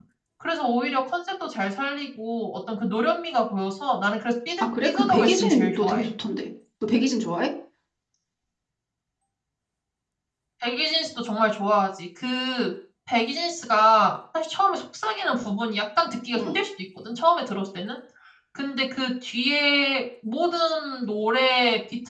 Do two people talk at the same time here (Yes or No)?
Yes